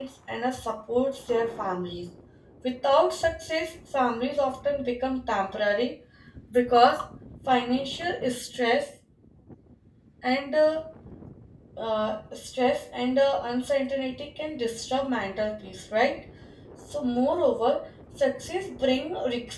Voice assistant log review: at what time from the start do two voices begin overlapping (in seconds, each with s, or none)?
none